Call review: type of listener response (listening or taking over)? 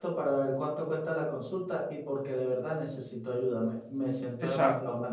taking over